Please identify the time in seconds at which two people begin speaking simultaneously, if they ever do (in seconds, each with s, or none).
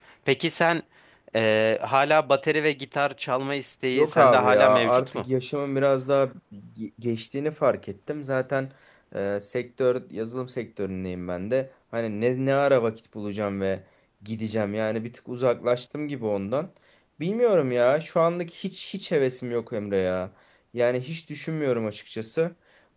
3.9 s